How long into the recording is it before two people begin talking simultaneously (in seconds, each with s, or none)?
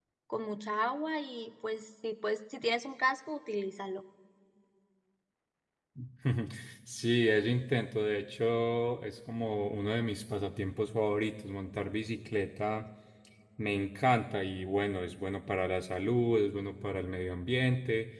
none